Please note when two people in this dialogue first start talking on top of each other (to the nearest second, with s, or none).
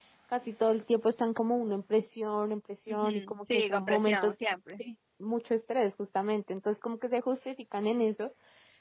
3 s